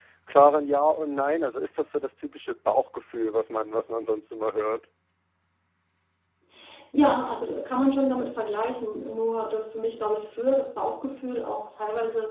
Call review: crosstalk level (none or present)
none